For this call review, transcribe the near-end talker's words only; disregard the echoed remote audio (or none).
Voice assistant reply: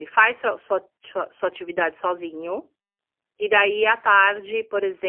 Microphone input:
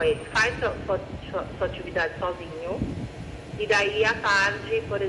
none